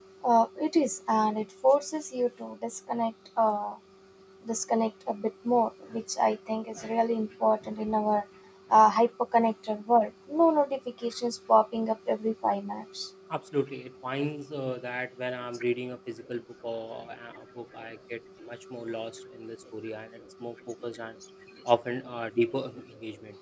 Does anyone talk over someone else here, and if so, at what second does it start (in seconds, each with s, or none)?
none